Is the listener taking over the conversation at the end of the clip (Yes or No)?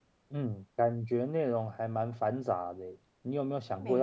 No